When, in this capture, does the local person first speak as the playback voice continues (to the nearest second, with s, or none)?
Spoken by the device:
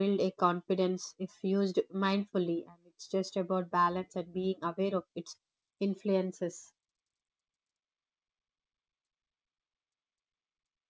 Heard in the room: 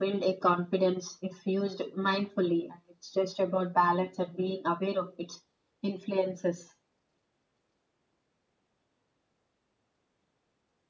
none